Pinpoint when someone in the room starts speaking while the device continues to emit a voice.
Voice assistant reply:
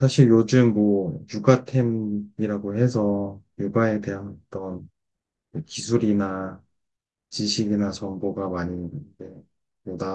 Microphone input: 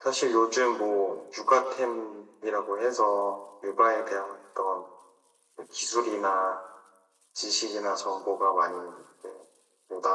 none

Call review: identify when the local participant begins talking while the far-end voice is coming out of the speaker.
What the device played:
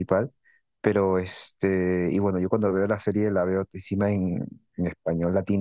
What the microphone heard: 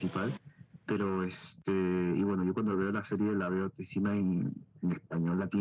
none

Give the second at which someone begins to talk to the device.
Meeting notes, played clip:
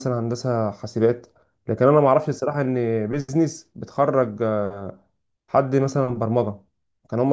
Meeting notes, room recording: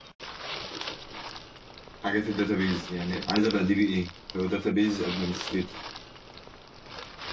2.0 s

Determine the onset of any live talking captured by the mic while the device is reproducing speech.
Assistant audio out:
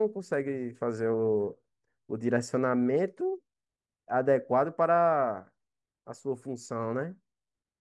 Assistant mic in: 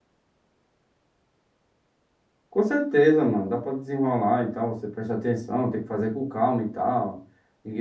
2.5 s

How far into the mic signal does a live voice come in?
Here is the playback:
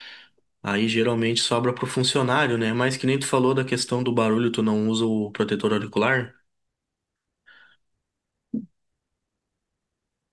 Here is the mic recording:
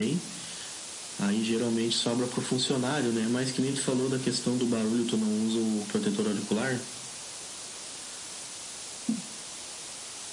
none

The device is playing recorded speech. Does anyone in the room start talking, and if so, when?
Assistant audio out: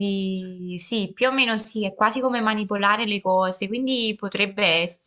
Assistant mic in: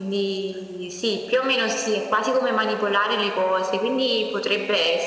none

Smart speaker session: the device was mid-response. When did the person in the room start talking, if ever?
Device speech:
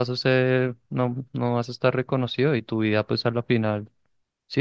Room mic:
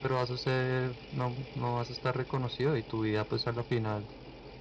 none

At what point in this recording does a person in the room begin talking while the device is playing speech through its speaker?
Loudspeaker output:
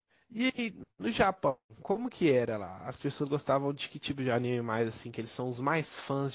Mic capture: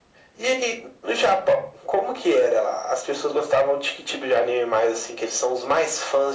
none

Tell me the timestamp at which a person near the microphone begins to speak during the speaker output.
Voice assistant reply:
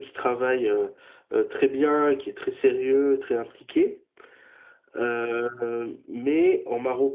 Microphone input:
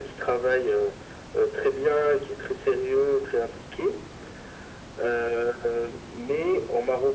none

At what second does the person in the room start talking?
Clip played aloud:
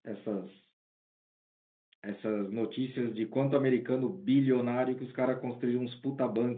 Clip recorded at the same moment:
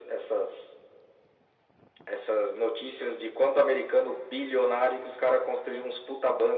none

